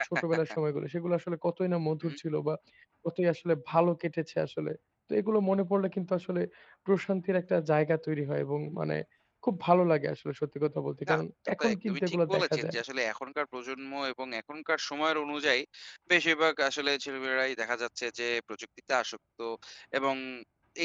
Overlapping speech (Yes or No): Yes